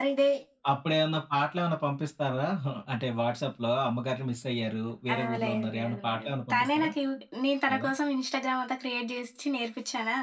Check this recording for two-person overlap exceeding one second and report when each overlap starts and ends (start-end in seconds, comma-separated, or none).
5.1-6.9